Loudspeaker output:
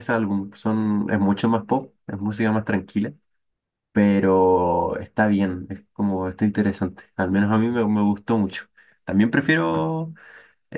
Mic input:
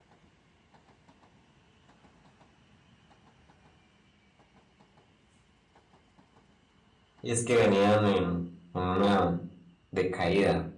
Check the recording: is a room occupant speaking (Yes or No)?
Yes